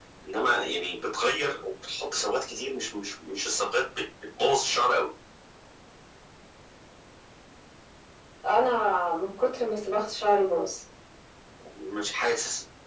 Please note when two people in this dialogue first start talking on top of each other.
none

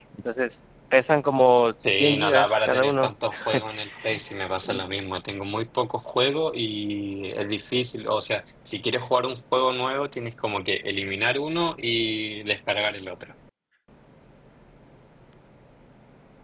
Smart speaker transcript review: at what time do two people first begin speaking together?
1.8 s

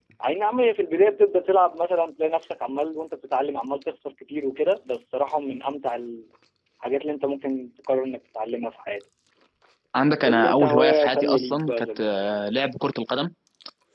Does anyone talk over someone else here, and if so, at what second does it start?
10.2 s

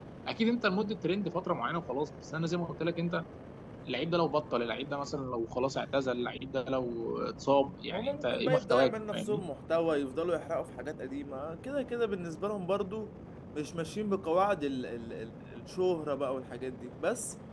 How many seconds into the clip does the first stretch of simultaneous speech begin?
7.9 s

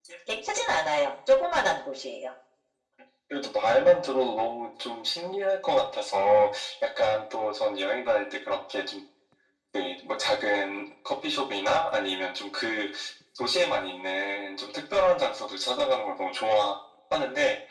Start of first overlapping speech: none

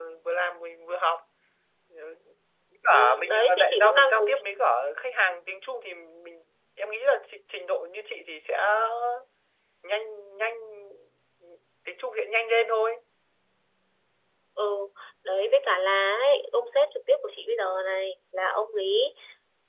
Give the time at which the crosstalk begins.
2.9 s

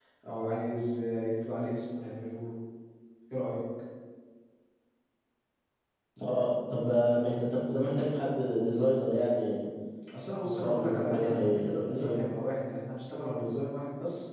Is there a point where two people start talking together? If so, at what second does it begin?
10.4 s

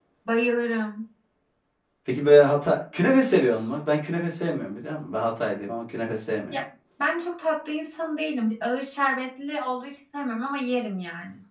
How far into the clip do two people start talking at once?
none

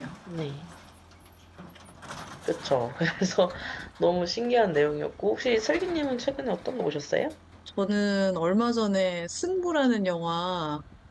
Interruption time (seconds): none

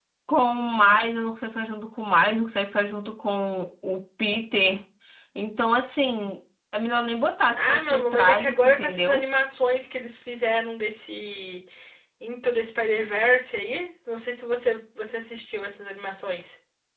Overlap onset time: 7.6 s

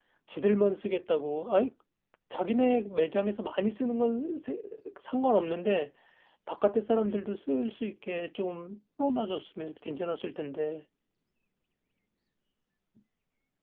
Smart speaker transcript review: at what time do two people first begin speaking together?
none

